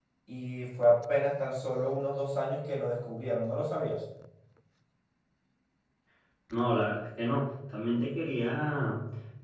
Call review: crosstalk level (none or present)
none